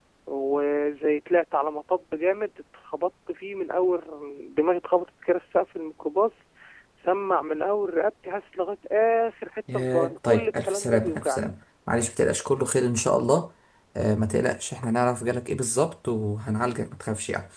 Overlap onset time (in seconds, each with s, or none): 9.7 s